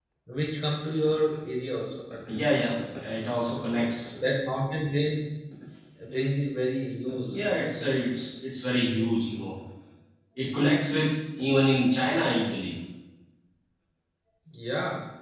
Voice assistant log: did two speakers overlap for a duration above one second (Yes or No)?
No